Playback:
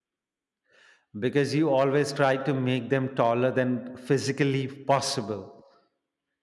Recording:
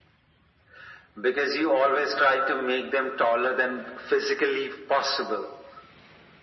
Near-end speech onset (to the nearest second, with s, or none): none